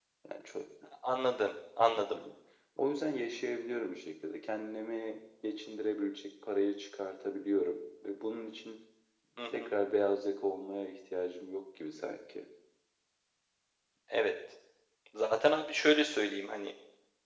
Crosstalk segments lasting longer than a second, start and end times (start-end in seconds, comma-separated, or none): none